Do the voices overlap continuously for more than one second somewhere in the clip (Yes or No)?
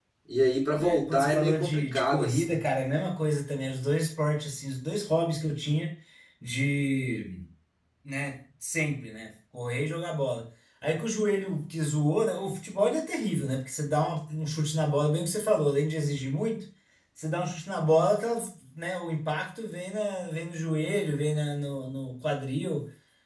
Yes